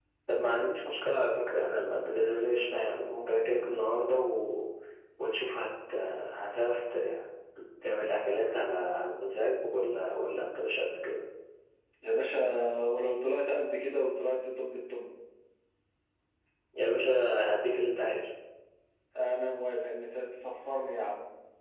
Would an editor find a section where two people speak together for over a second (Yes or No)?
No